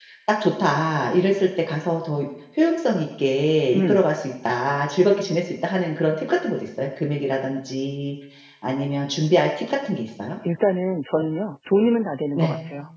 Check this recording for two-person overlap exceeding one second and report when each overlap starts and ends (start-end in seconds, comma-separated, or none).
none